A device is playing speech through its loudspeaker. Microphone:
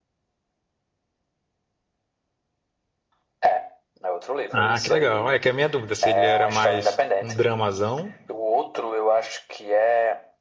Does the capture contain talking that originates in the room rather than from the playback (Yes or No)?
Yes